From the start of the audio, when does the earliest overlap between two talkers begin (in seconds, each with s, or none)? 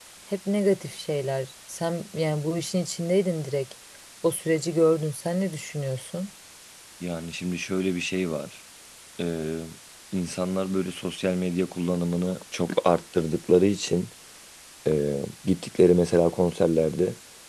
none